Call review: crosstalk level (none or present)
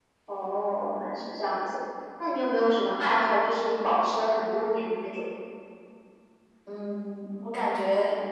none